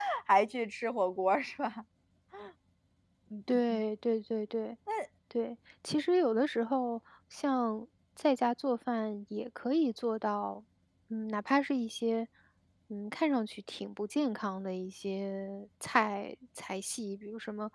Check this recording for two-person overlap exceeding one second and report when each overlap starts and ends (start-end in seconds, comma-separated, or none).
none